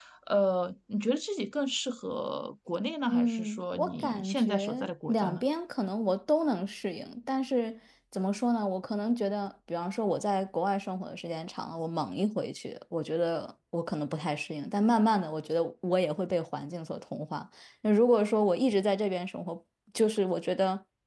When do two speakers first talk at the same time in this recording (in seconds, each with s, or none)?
3.1 s